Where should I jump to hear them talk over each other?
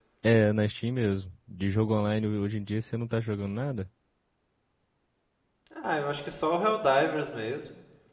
none

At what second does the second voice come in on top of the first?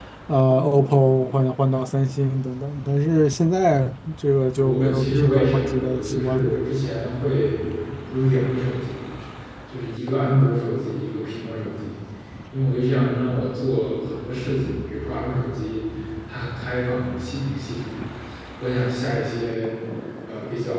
4.6 s

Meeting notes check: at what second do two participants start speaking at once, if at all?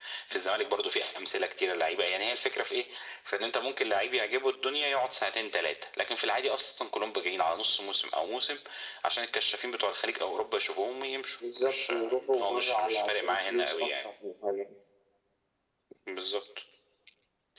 11.4 s

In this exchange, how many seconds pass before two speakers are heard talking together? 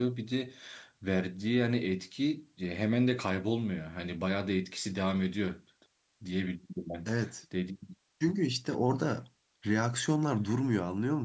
none

